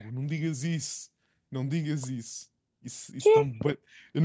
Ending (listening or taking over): listening